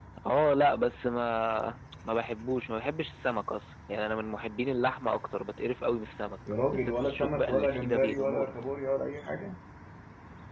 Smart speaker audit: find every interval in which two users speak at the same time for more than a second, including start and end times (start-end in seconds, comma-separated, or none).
6.7-8.5